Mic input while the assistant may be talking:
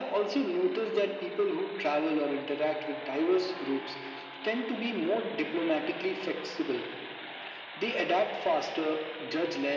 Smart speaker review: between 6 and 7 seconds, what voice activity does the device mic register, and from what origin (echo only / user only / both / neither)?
echo only